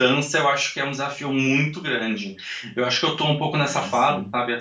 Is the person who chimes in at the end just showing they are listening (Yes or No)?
Yes